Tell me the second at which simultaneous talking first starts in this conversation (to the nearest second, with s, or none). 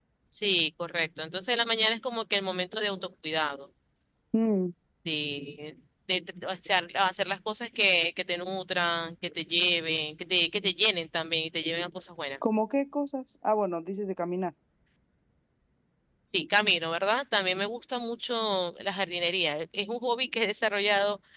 none